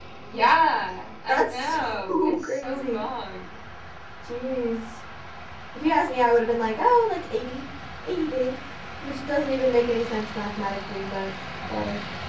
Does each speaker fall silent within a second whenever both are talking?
No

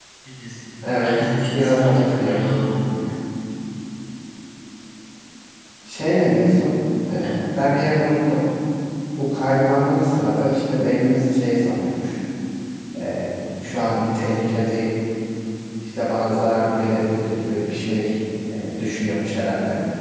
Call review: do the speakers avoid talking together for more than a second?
No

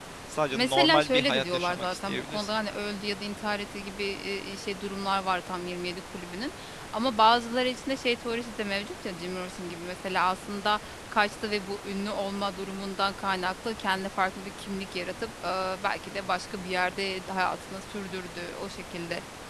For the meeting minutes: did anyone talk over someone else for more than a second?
Yes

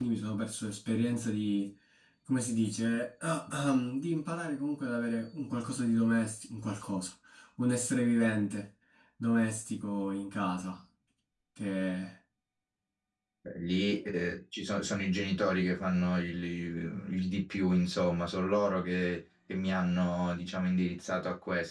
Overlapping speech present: No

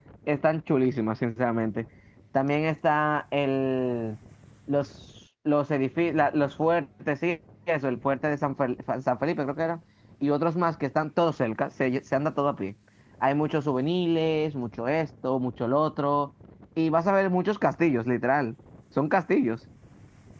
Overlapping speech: No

